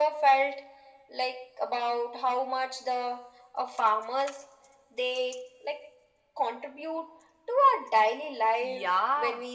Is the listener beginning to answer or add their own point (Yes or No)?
Yes